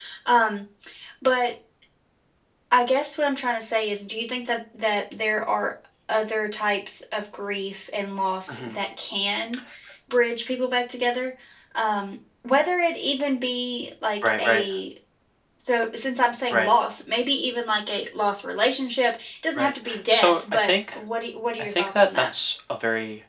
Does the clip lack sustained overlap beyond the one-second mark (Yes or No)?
No